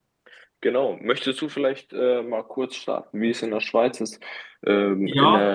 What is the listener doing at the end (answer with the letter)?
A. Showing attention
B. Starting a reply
A